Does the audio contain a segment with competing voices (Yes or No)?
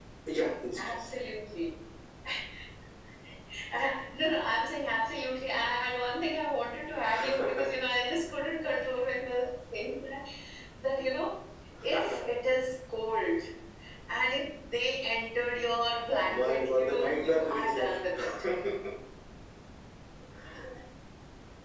Yes